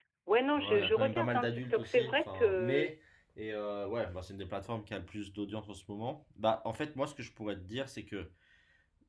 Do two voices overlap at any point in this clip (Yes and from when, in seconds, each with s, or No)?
Yes, from 0.6 s